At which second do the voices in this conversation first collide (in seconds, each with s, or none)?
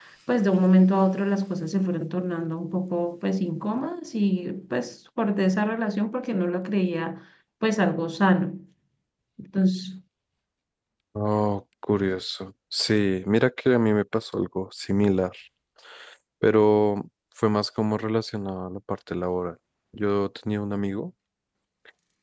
none